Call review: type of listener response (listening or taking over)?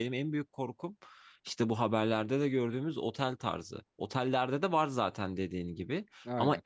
listening